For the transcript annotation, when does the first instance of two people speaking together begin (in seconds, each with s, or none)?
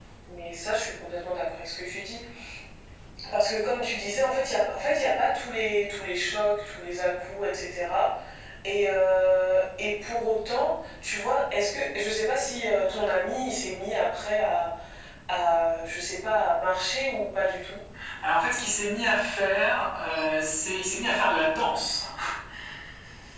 none